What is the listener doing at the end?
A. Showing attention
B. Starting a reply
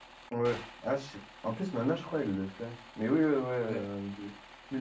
A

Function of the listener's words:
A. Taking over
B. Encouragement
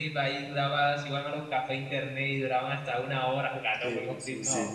A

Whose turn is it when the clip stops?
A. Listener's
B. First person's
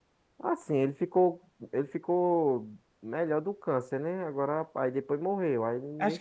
A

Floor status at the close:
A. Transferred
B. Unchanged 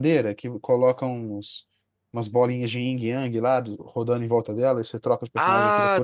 A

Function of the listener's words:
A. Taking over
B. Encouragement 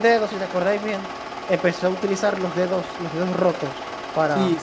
A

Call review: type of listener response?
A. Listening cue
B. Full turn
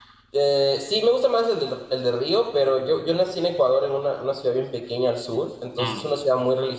A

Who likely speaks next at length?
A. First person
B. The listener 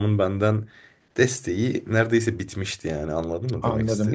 B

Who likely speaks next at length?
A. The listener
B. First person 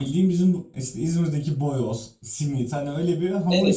A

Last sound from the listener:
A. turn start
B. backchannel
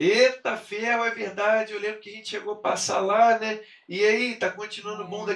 A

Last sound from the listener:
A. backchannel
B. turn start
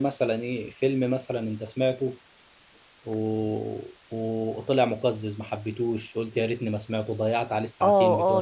B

